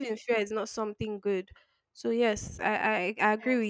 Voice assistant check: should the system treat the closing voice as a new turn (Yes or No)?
Yes